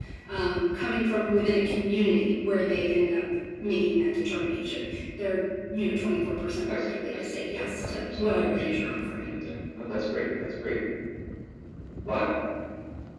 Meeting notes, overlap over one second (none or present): present